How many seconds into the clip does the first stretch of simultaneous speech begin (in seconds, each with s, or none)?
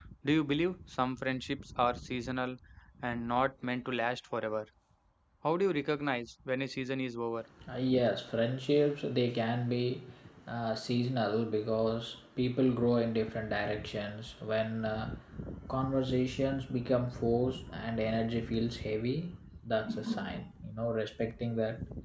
none